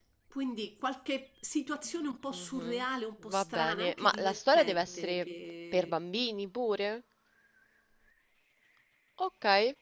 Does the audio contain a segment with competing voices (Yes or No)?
Yes